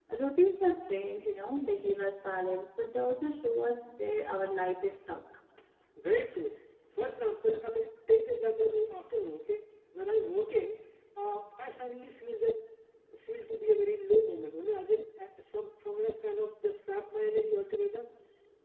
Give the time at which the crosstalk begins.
none

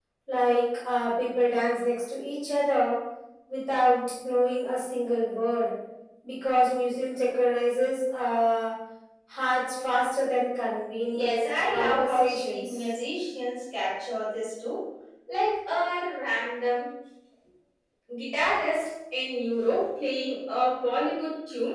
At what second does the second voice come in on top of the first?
11.1 s

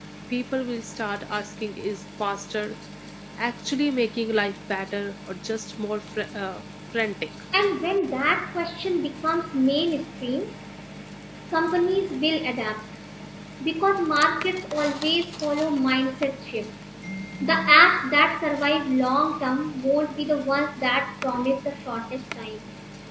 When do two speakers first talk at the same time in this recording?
none

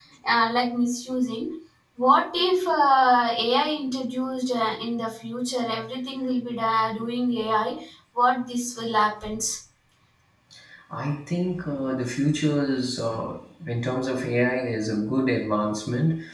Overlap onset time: none

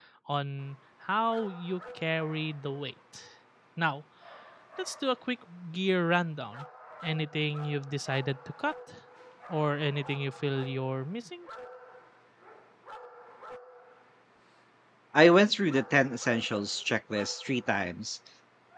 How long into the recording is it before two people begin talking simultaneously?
none

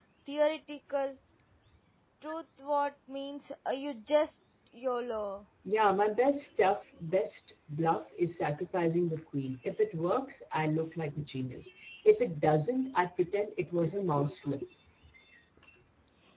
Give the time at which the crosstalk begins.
none

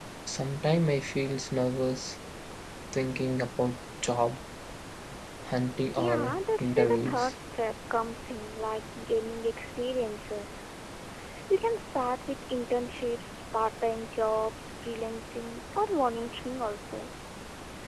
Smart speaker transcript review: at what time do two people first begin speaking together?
6.0 s

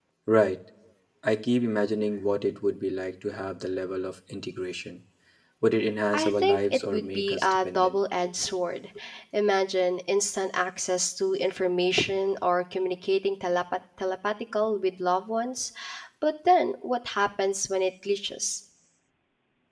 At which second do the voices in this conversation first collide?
6.1 s

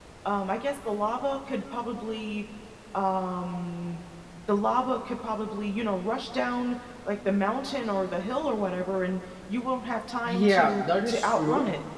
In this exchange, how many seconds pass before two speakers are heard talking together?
10.2 s

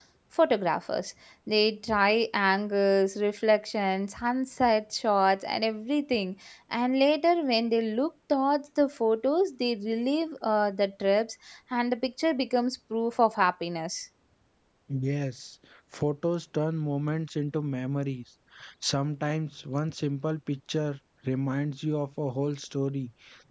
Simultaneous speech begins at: none

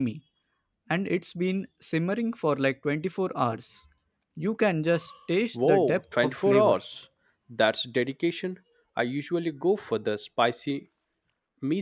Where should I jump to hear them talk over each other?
5.5 s

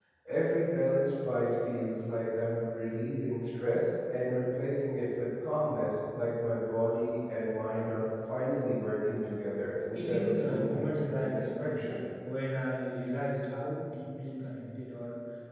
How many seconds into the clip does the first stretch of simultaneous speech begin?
9.9 s

